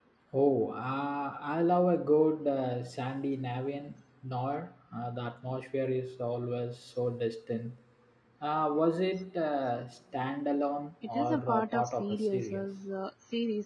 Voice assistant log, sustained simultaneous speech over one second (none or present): present